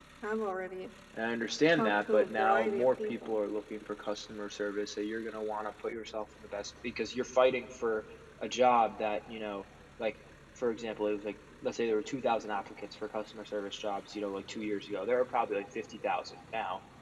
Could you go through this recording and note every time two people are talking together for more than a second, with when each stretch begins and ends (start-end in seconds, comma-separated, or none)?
1.7-3.4